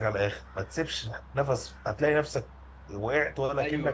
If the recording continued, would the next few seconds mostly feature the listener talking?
Yes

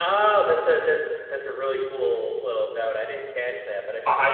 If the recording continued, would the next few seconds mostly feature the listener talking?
Yes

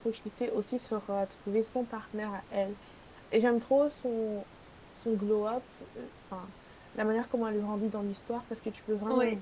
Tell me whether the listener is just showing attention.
Yes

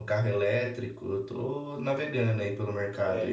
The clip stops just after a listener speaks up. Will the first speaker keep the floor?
No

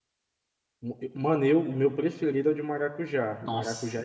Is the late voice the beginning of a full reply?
Yes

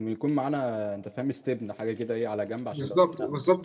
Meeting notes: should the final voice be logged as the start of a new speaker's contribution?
Yes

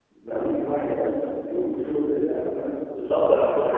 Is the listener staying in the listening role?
No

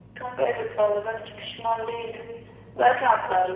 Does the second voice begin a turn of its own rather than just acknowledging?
No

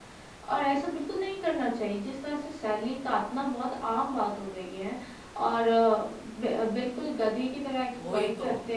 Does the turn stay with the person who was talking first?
Yes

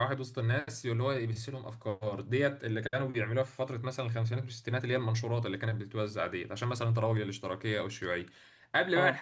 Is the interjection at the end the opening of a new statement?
No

